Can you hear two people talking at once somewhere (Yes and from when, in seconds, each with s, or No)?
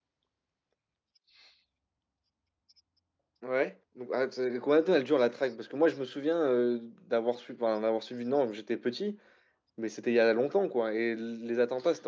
No